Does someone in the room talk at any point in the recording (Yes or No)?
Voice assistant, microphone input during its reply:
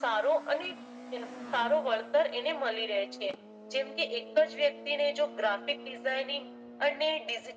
No